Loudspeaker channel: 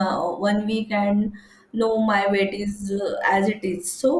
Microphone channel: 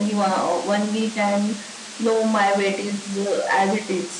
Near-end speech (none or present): none